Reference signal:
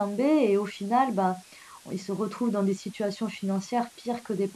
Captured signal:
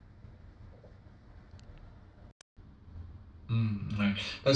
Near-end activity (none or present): present